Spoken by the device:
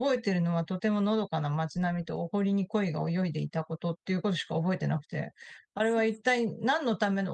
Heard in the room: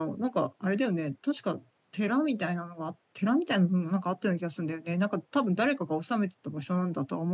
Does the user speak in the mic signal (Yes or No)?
Yes